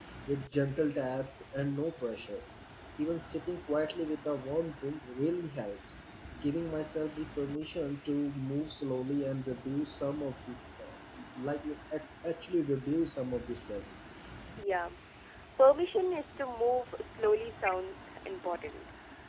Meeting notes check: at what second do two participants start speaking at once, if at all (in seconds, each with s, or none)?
none